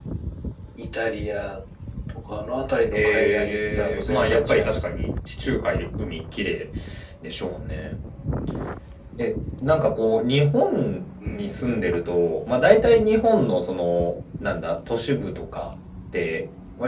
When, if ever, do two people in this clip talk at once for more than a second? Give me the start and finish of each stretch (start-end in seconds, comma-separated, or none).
2.9-4.9